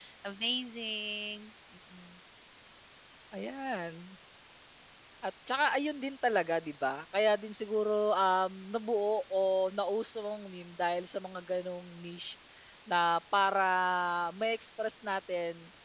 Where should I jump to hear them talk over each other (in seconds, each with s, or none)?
none